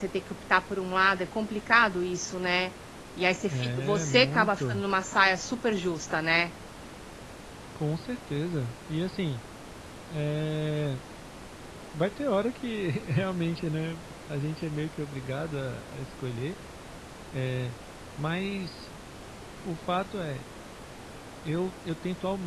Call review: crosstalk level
present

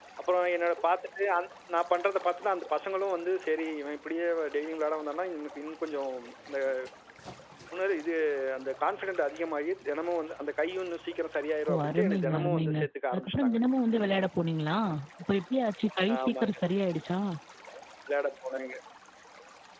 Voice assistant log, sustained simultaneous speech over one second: present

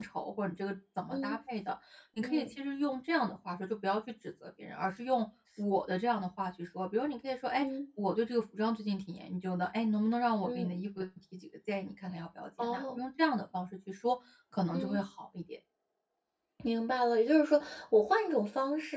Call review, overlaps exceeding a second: none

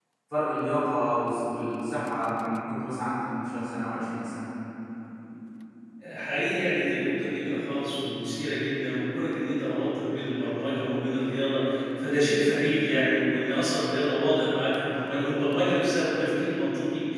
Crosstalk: none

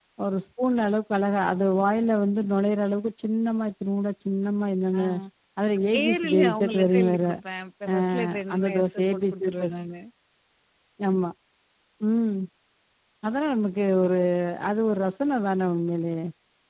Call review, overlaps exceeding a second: present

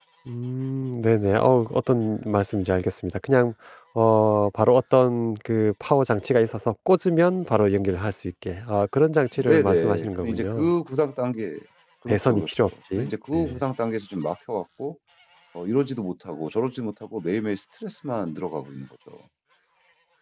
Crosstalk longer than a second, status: present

